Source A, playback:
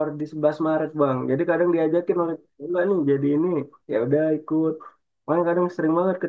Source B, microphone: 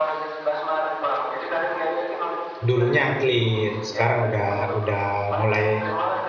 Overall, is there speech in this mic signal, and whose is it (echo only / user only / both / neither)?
both